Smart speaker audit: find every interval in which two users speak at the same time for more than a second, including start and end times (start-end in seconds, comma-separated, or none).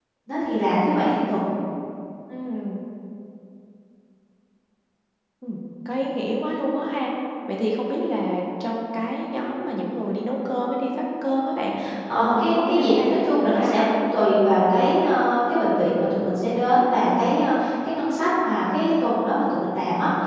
12.2-13.8